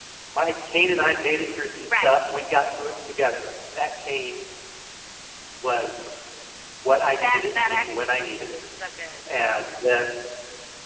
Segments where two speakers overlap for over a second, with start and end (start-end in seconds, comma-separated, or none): 7.2-8.4